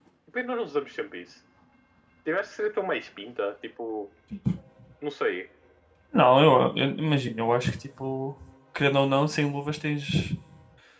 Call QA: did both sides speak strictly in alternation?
Yes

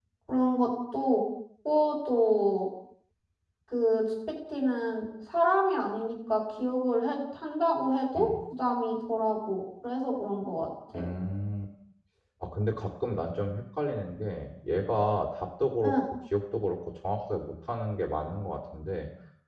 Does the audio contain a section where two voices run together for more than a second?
No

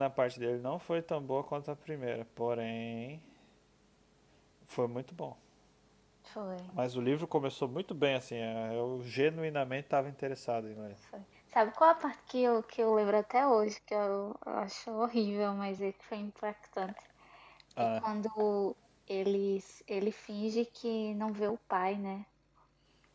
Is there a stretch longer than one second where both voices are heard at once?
No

